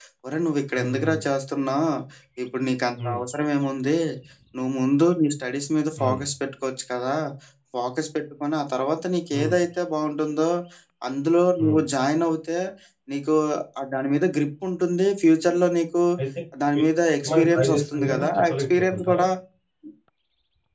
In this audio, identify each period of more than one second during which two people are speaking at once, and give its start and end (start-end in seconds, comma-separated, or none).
17.3-19.2